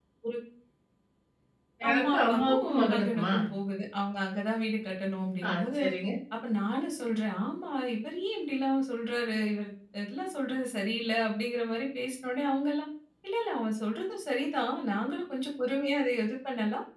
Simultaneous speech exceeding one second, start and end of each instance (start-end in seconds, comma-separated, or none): 1.9-3.3